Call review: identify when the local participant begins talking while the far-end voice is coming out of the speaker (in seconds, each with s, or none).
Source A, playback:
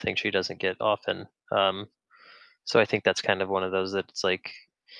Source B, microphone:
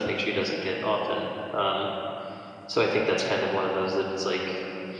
none